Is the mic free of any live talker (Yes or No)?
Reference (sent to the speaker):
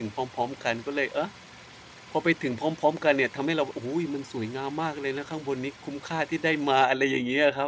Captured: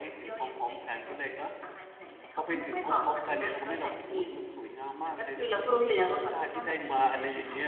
No